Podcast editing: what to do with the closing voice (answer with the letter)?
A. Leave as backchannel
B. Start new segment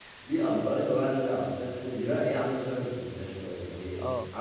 A